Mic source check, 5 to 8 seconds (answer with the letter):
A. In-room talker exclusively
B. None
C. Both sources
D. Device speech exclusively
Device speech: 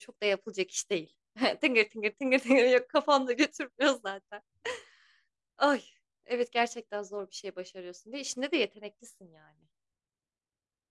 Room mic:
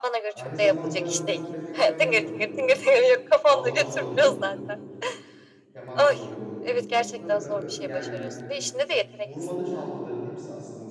C